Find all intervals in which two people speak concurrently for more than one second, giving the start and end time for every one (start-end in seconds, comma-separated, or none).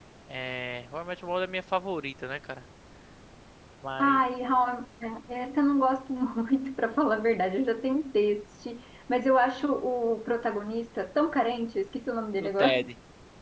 none